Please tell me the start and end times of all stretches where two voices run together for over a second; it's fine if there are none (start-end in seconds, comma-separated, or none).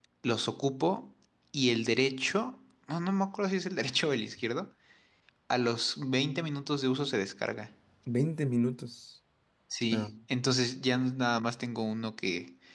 none